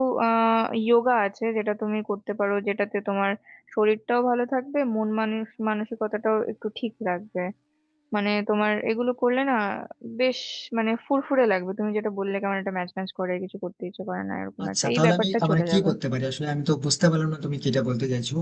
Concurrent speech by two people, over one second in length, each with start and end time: 14.6-15.9

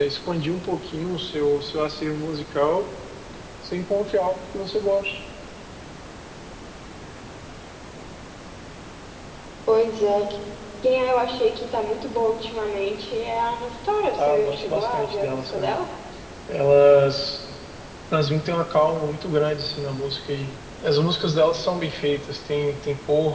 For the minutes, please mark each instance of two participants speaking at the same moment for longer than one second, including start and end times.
14.2-15.8

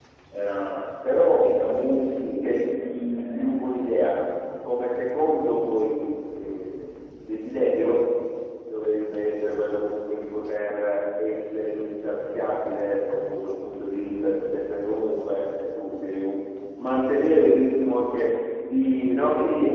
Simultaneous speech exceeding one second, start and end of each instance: 2.4-3.6

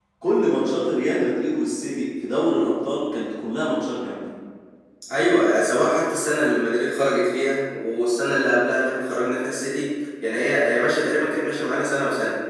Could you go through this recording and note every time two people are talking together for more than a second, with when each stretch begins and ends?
none

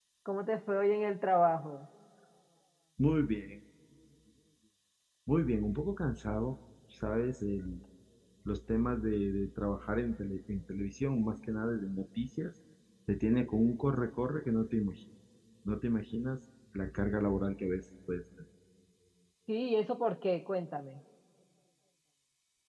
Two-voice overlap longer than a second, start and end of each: none

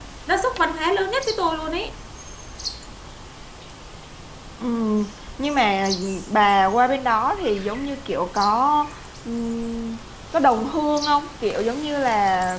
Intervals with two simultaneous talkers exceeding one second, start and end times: none

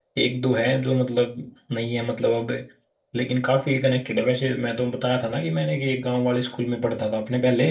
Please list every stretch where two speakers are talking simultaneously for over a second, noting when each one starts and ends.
none

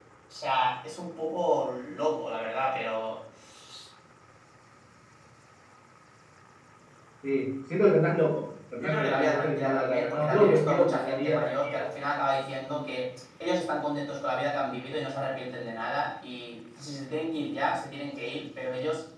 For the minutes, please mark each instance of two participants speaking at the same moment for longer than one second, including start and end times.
8.8-11.9

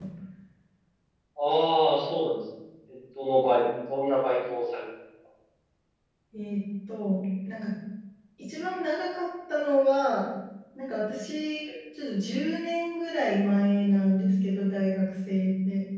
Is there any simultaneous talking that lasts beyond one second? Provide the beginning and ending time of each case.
none

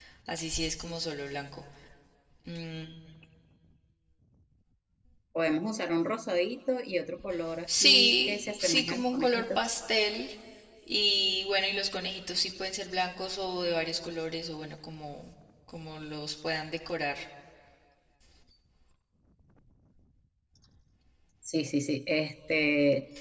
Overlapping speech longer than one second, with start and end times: 7.7-9.7

